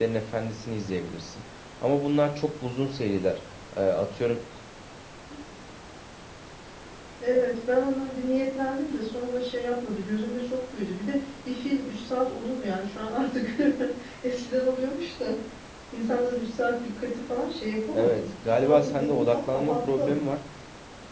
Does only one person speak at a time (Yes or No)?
No